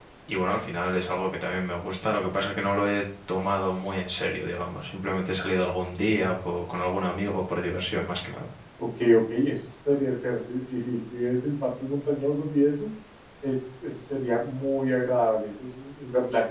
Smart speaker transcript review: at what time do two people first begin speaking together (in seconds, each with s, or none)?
none